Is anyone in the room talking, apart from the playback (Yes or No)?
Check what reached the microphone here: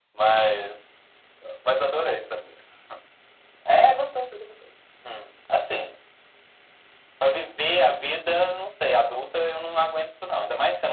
No